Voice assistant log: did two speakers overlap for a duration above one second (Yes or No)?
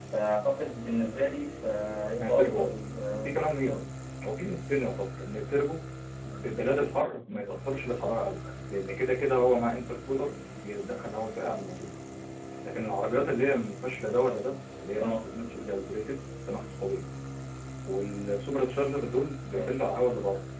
No